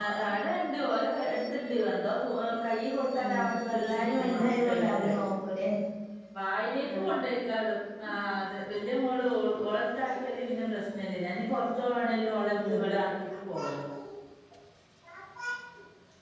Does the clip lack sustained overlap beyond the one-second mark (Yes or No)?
No